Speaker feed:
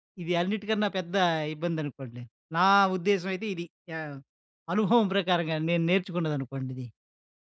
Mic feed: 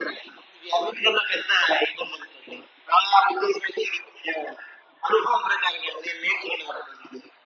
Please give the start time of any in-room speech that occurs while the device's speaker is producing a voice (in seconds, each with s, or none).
none